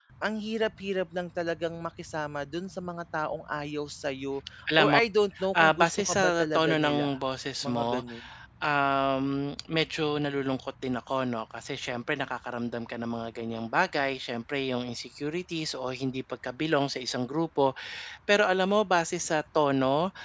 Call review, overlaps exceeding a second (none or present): present